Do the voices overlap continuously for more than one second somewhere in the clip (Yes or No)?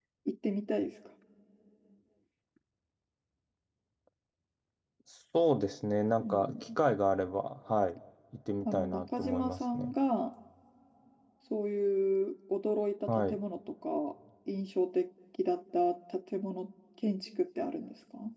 Yes